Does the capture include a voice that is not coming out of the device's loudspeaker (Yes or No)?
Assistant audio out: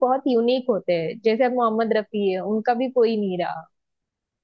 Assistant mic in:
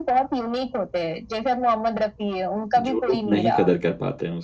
Yes